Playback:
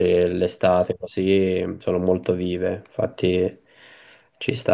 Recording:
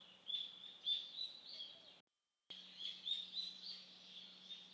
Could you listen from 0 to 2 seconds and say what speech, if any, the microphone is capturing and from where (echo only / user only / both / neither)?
neither